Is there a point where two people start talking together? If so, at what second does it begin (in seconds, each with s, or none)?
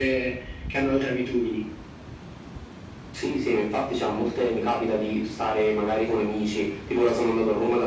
none